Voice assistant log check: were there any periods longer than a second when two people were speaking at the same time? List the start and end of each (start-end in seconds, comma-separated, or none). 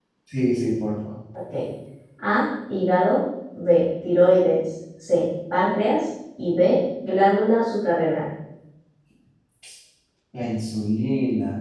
none